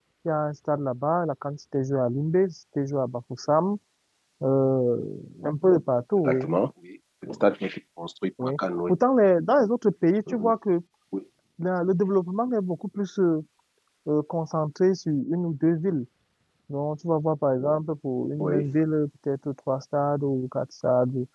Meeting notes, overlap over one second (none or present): none